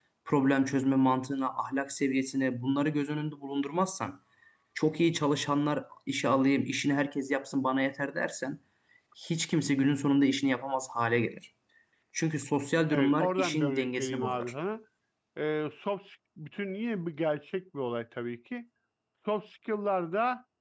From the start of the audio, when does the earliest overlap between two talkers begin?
13 s

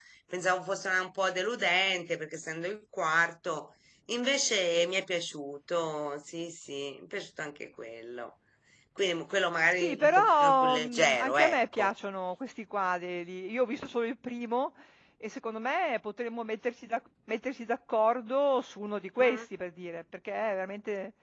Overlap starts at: 10 s

